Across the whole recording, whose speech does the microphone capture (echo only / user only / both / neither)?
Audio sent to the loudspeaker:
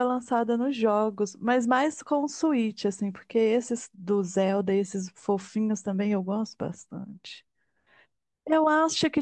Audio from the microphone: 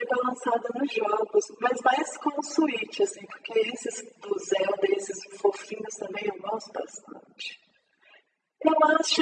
echo only